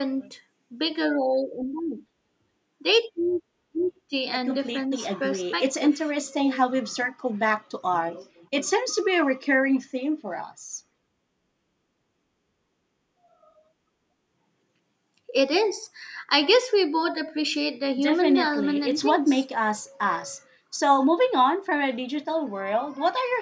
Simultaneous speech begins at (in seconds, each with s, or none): 4.5 s